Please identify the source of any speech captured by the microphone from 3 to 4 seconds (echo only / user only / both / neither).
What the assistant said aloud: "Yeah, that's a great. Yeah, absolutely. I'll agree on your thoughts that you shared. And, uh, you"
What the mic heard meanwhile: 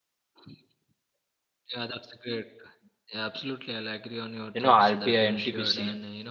echo only